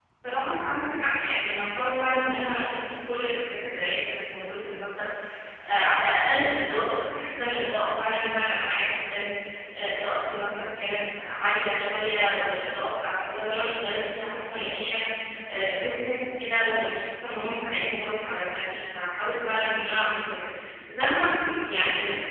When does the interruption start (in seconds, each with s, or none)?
none